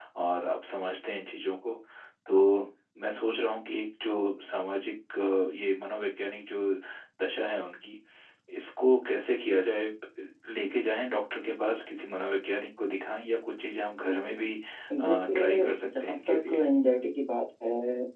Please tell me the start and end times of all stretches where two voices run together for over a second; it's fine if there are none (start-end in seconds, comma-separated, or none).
15.0-16.6